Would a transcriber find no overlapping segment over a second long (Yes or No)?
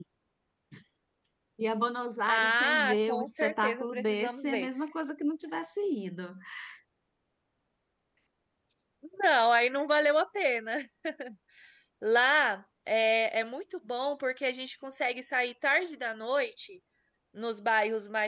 No